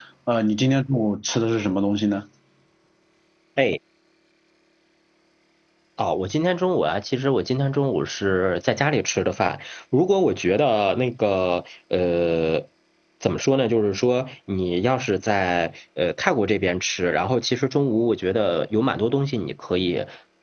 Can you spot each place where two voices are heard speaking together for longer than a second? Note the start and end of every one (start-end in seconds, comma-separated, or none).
none